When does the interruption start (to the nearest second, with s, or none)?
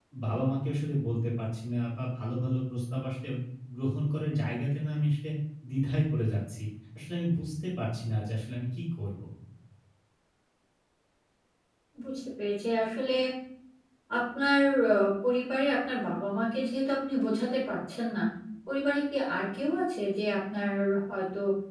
none